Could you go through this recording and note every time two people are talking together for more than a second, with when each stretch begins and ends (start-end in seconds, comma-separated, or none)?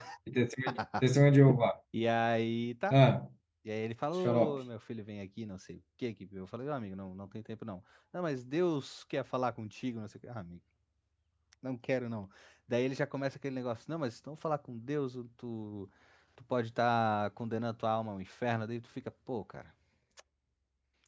none